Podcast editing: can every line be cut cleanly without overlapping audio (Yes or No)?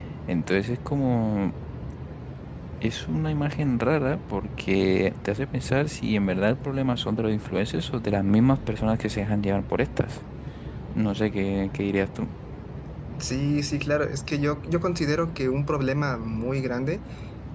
Yes